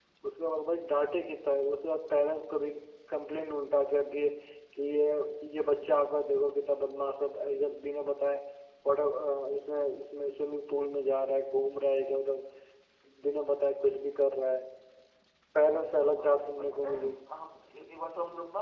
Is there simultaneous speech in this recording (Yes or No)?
Yes